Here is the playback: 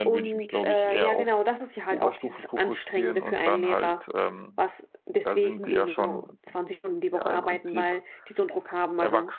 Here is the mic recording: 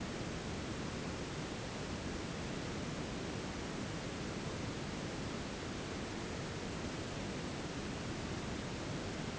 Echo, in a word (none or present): none